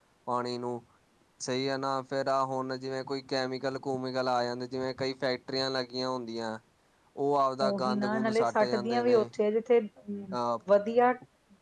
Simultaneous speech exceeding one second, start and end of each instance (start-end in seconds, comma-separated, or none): 7.6-9.2